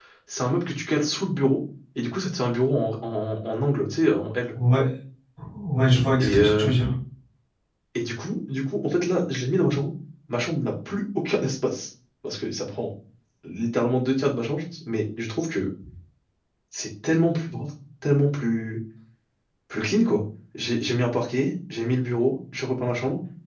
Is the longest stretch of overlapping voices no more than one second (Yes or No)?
Yes